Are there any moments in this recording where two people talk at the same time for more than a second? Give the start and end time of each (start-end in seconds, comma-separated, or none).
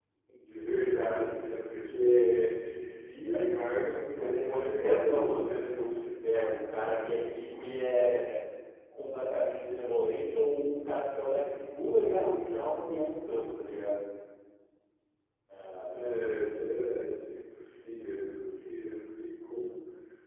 4.1-5.5